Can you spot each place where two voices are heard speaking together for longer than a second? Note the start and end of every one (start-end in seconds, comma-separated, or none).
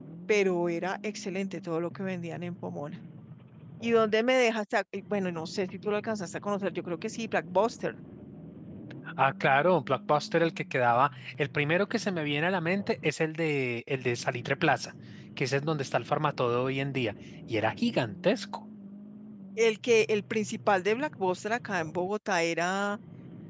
none